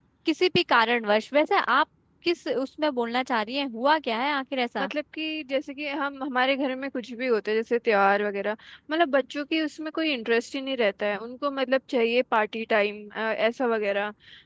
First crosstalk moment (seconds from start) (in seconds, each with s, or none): none